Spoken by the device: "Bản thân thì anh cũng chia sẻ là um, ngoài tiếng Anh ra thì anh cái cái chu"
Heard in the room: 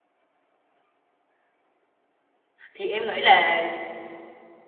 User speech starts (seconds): 2.7 s

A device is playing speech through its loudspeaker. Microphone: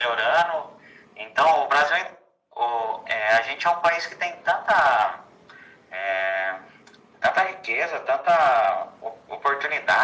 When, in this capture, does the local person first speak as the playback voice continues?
none

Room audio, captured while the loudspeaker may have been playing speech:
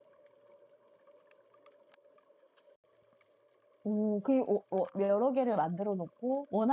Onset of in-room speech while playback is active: 3.8 s

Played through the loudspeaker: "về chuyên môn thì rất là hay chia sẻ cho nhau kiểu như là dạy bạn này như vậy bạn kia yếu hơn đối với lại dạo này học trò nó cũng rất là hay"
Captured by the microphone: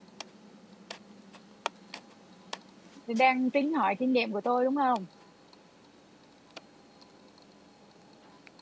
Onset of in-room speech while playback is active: 3.1 s

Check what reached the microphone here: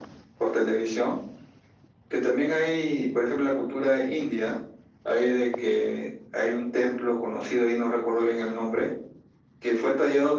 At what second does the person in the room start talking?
none

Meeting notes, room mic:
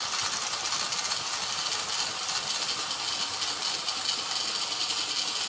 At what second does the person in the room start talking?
none

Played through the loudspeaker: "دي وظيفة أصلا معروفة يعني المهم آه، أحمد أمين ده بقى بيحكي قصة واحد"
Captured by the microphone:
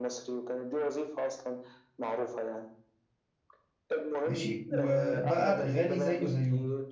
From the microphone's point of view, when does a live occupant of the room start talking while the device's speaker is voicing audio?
4.2 s

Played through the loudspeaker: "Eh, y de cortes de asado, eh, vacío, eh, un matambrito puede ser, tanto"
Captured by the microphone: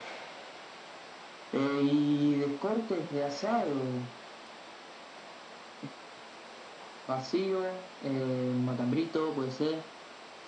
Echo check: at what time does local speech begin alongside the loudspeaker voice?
none

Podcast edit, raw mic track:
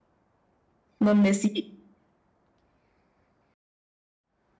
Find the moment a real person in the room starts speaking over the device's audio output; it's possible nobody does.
1.0 s

